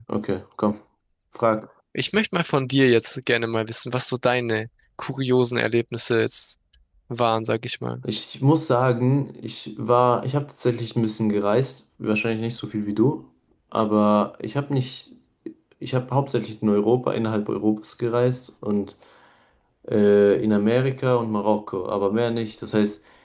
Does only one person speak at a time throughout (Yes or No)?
Yes